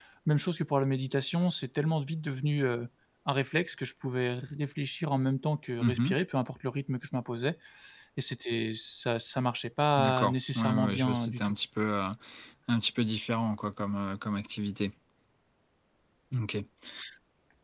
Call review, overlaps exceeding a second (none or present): present